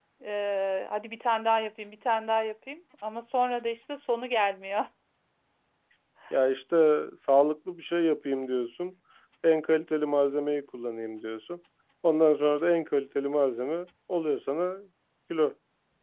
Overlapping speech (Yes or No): No